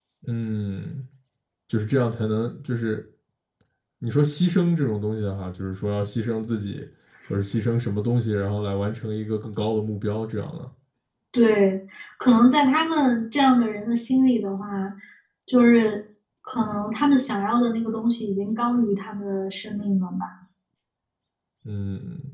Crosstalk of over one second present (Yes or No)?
No